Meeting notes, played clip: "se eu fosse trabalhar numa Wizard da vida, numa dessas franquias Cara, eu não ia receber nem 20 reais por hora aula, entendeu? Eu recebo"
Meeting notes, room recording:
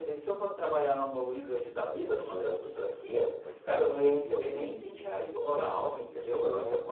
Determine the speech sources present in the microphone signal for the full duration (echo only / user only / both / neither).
both